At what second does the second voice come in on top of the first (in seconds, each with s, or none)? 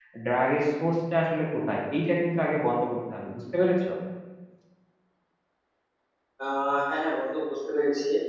none